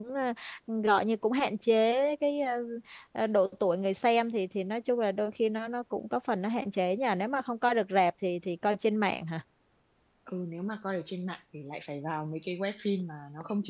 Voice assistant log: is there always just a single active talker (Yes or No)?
Yes